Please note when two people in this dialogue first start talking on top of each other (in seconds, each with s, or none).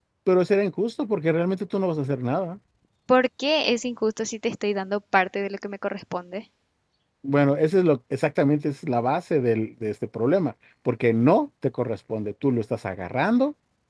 none